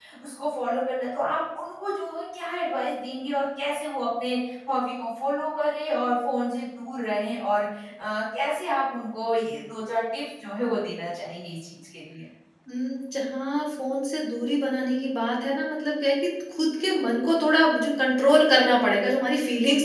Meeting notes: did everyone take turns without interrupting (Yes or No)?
Yes